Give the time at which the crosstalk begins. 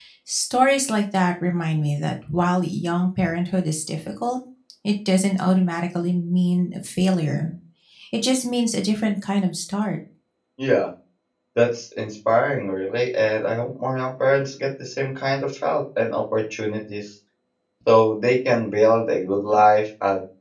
none

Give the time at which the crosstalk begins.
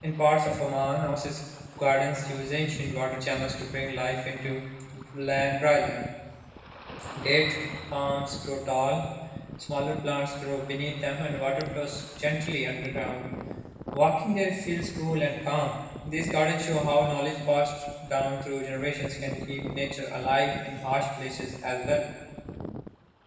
none

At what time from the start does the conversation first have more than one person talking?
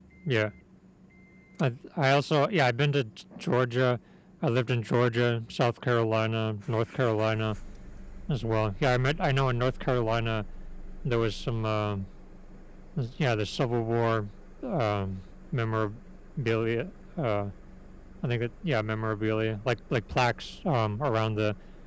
none

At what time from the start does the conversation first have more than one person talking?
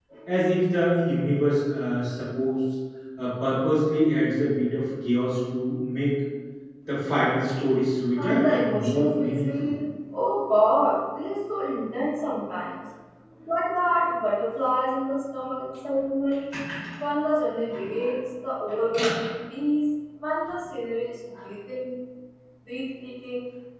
8.2 s

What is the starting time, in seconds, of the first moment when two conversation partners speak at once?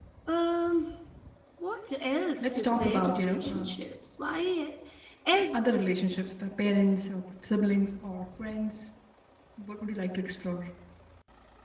2.4 s

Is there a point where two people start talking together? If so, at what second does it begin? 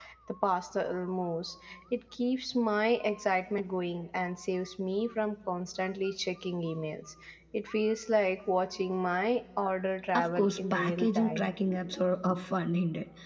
10.1 s

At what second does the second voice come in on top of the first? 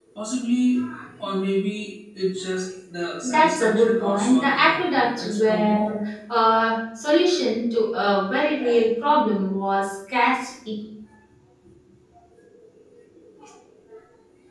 3.2 s

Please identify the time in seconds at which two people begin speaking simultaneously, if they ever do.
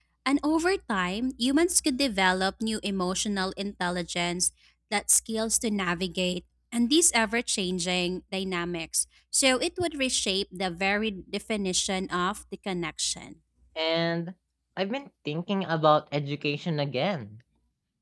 none

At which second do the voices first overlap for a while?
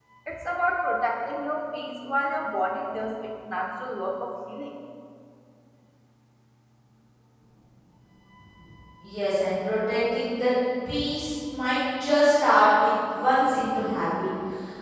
none

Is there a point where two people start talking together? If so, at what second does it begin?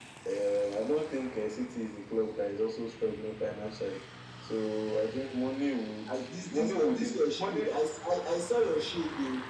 6.1 s

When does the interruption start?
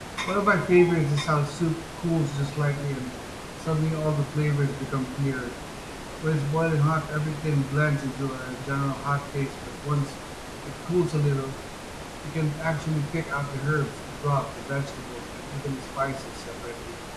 none

